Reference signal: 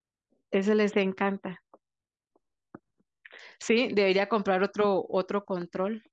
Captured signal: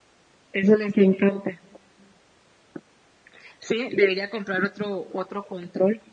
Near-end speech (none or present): none